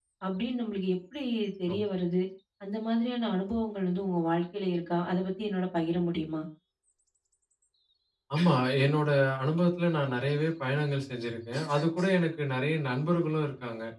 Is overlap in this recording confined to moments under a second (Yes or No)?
Yes